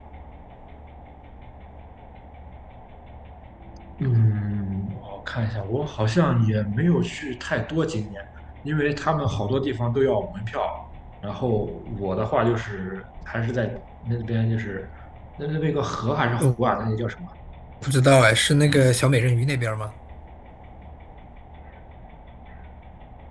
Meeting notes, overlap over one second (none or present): none